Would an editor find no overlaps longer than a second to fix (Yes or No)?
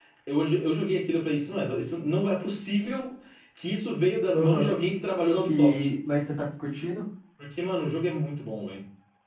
Yes